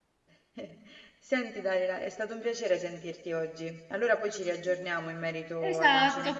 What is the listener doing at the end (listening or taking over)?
taking over